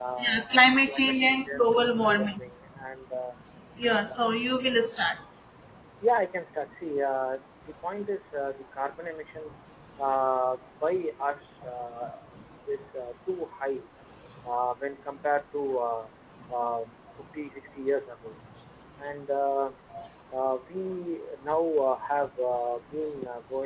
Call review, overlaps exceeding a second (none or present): present